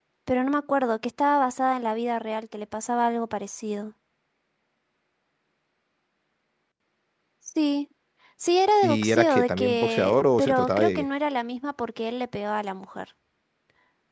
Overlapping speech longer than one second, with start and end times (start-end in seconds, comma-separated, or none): 8.8-11.1